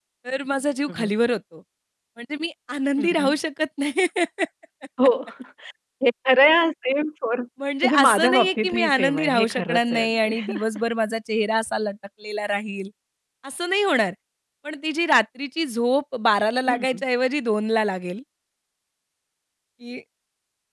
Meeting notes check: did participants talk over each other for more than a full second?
Yes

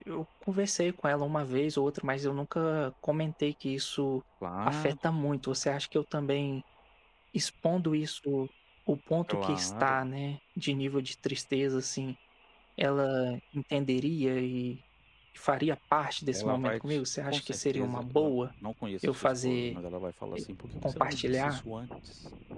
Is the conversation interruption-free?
No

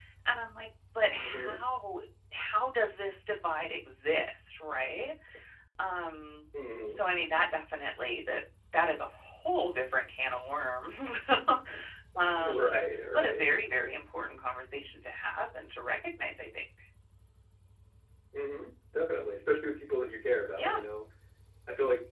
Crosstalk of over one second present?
No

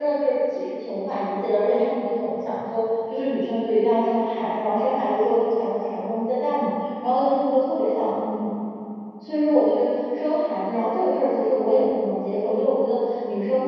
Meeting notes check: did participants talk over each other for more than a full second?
No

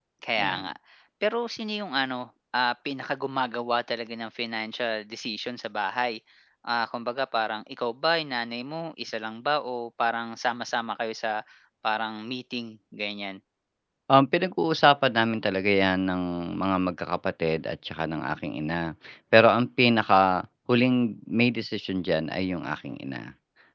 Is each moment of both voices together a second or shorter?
Yes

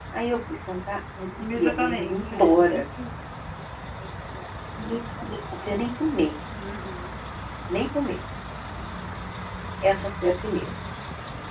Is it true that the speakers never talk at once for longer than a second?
No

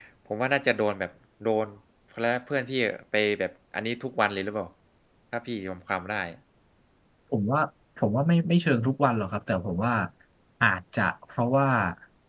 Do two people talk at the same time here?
No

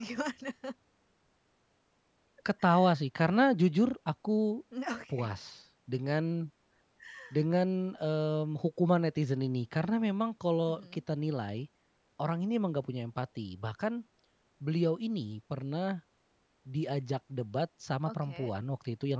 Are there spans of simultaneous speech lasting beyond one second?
No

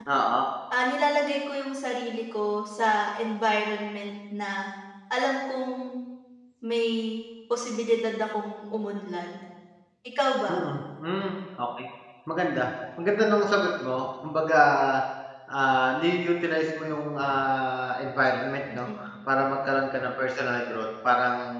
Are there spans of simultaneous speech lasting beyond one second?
No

